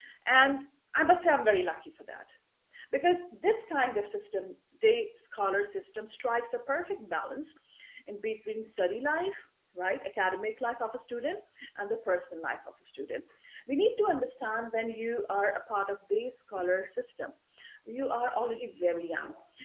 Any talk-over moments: No

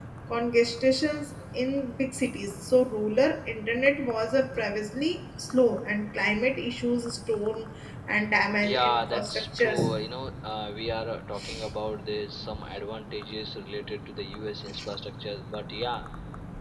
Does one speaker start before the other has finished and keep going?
Yes, from 8.6 s

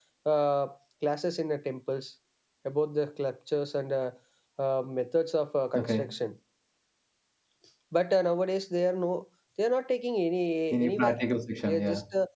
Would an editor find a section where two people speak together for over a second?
No

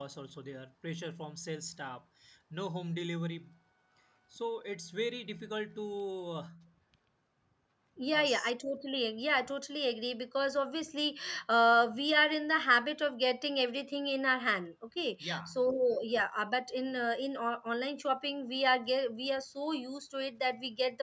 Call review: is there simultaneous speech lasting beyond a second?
No

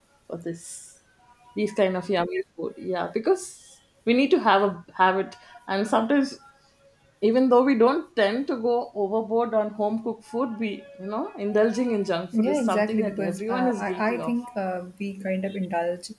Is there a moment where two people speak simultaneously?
Yes, from 12.3 s

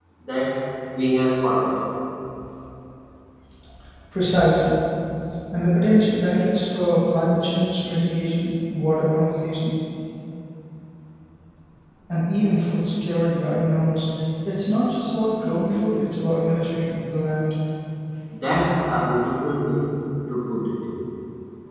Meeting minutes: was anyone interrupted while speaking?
No

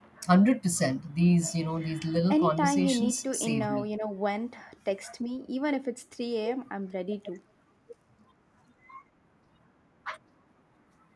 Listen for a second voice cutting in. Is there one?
Yes, from 2.3 s

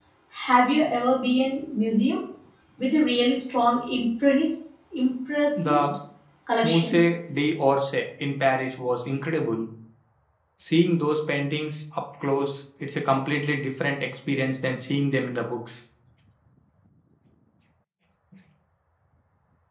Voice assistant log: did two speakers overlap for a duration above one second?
No

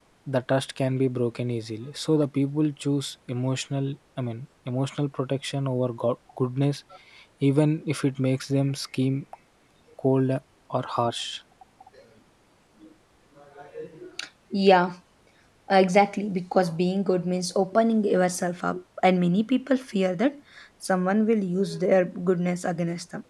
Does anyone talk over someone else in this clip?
No

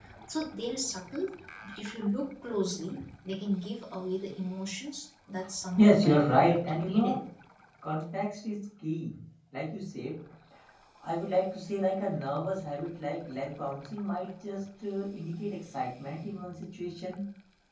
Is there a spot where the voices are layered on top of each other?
Yes, from 5.8 s

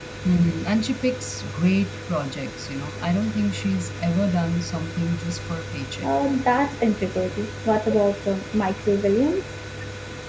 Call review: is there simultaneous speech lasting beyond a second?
No

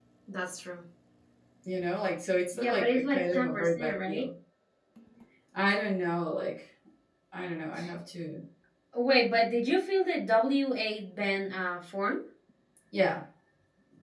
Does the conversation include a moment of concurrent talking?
Yes, from 2.5 s

